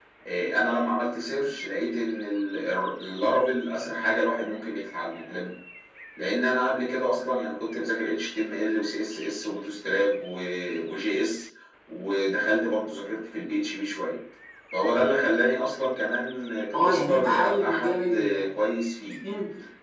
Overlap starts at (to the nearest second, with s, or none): 17 s